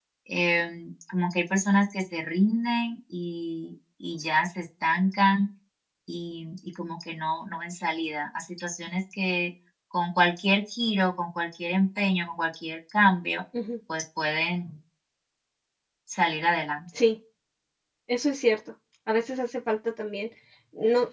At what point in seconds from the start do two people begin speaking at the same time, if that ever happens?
none

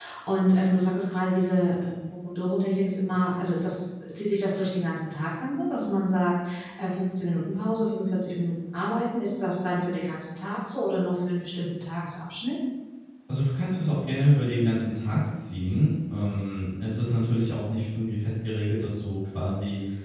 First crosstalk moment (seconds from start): none

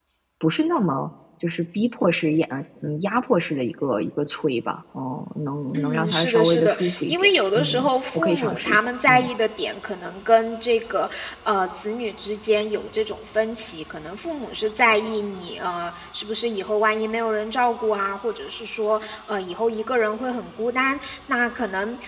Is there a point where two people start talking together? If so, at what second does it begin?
5.7 s

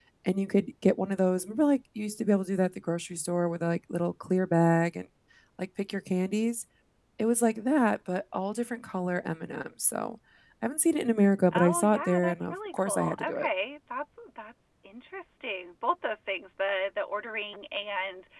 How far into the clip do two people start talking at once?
11.5 s

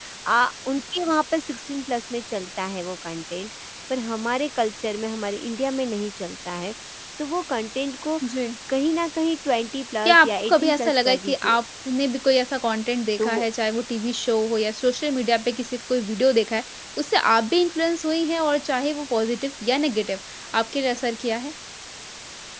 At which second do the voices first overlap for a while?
10.1 s

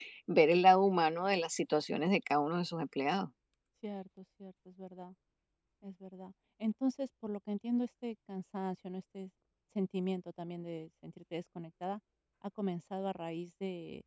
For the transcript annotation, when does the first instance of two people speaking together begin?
none

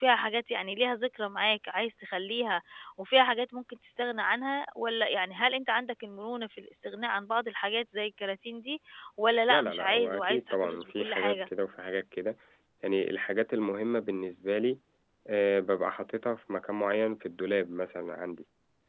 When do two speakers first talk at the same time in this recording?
9.5 s

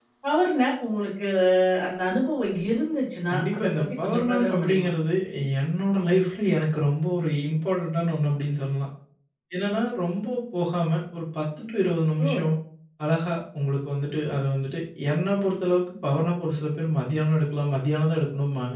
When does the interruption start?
3.3 s

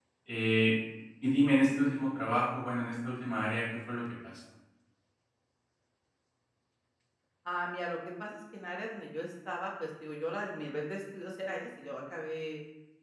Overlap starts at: none

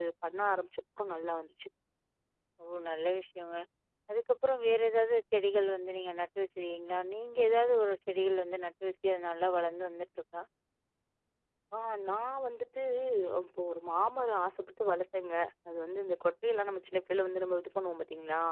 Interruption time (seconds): none

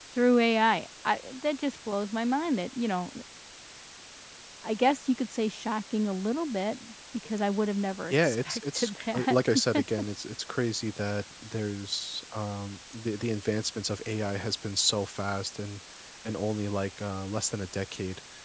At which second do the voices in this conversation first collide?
8.1 s

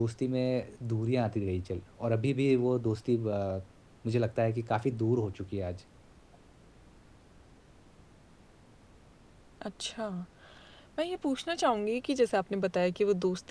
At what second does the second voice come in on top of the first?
none

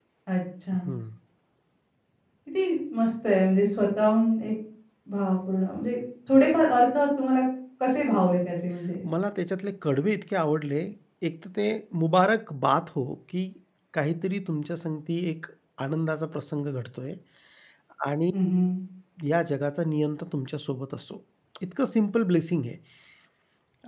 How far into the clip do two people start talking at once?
none

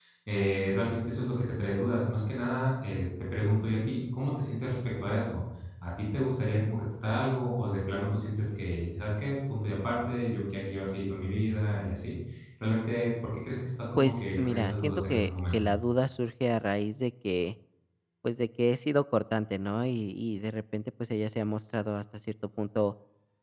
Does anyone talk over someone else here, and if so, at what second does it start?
14.0 s

